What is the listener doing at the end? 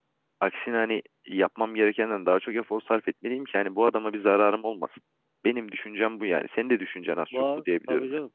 taking over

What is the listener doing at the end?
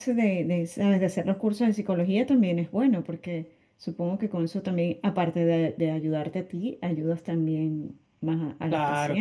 taking over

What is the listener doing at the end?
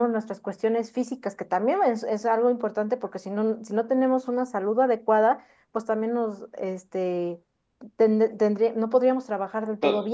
taking over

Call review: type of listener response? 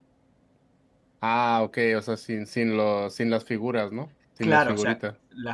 taking over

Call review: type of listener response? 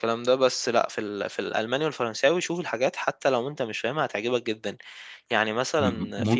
taking over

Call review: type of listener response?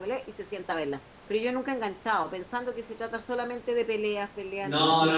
taking over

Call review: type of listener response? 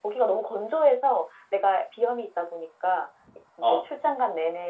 listening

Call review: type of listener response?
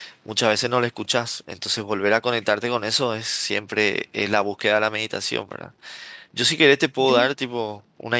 listening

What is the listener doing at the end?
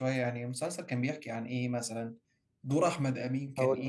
listening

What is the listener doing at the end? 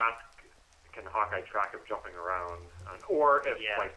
listening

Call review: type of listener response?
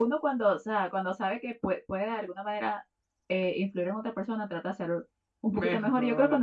listening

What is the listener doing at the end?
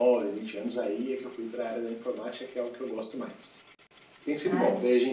listening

